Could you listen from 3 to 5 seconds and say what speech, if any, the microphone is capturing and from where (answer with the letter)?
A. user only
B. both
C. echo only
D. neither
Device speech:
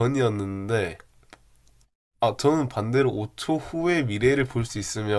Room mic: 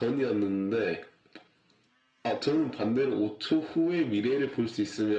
C